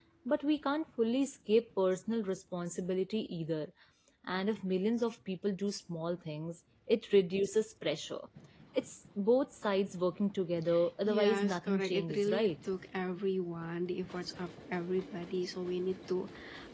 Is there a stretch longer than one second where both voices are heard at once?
Yes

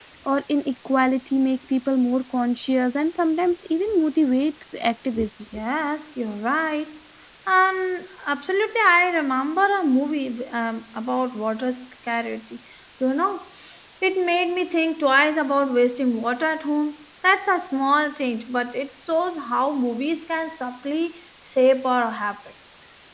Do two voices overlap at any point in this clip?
No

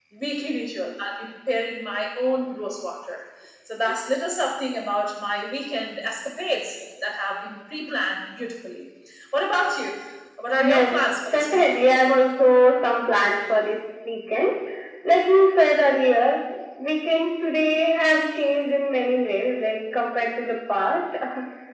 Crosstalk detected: Yes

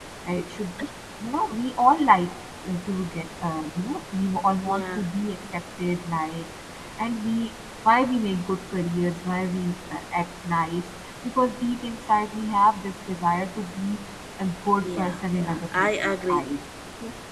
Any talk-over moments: Yes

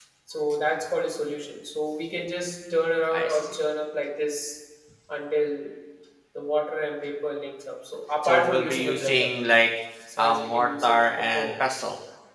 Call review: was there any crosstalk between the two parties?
Yes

